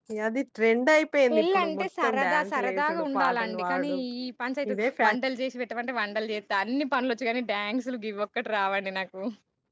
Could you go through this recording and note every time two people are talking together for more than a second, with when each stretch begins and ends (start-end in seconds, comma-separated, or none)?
1.3-4.0